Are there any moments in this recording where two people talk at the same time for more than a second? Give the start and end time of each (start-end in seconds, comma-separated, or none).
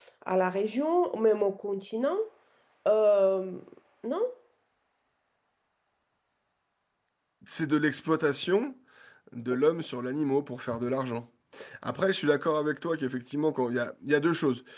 none